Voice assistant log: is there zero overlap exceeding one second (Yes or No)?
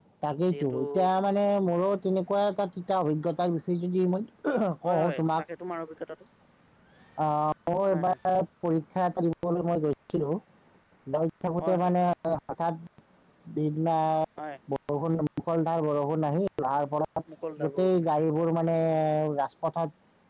Yes